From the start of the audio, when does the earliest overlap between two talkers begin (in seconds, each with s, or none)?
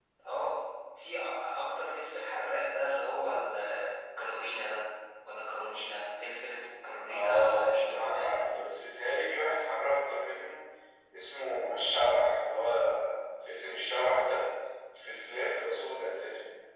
7.1 s